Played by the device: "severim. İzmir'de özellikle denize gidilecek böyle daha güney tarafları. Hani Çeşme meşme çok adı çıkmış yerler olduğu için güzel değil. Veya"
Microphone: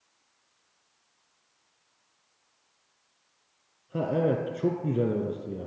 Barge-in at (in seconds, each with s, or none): 3.9 s